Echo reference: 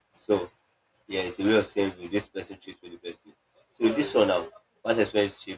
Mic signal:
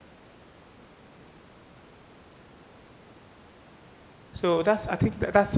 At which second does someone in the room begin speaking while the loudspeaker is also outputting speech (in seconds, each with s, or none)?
4.3 s